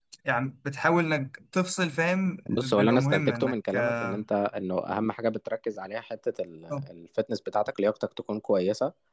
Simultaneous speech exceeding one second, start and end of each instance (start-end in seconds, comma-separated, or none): 2.5-4.1